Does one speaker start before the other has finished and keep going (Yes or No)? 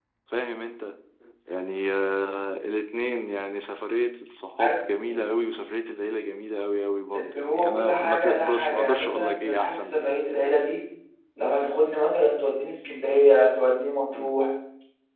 Yes